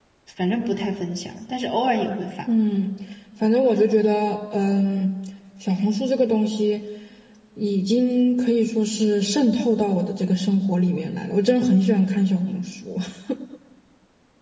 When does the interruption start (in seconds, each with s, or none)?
none